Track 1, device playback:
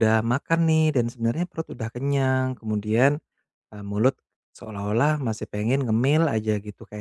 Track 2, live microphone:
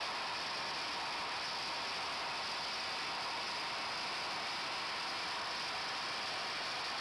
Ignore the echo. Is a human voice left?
No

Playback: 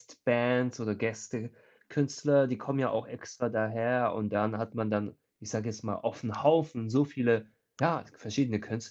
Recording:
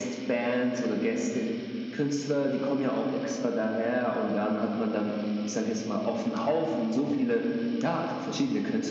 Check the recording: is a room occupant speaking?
No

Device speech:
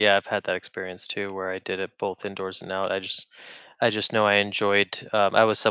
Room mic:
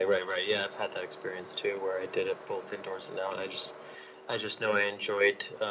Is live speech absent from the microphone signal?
Yes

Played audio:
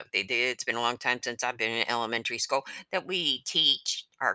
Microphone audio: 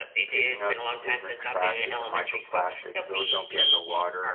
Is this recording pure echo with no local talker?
No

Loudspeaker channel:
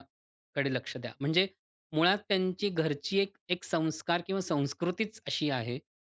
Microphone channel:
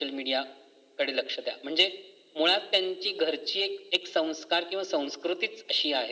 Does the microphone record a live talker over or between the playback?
No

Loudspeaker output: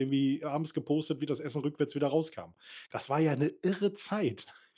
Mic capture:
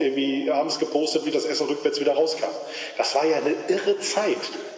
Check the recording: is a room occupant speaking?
No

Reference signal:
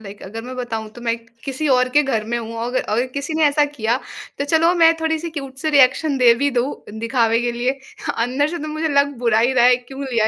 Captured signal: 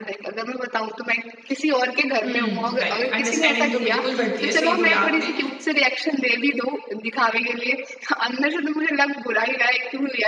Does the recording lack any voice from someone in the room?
No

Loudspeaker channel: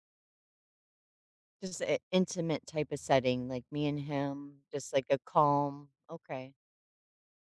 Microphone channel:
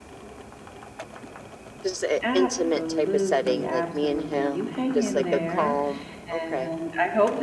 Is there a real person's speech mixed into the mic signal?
Yes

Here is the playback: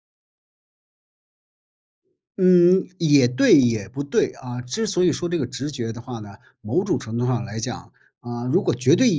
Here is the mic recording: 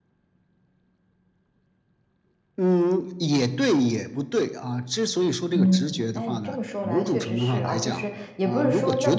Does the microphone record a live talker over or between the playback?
Yes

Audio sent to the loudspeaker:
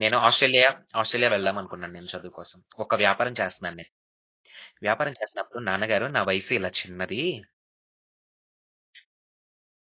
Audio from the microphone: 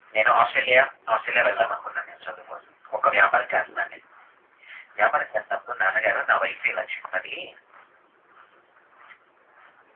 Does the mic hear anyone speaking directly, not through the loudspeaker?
No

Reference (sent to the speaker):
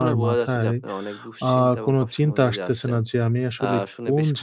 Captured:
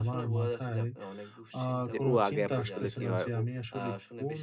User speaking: Yes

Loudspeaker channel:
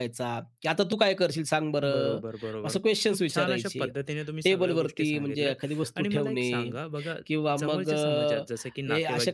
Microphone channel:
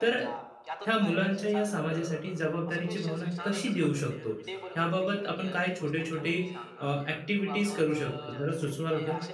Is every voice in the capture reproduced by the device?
No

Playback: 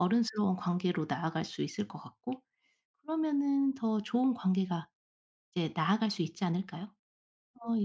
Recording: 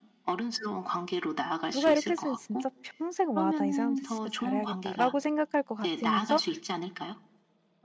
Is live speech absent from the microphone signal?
No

